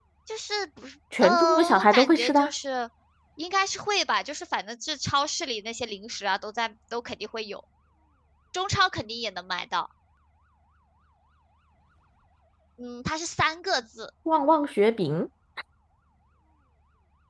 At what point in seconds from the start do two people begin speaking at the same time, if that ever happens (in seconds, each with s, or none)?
1.2 s